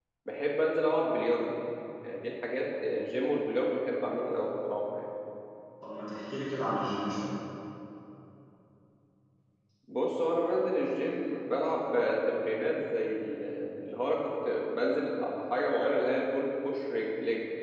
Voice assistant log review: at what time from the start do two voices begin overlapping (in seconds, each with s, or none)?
none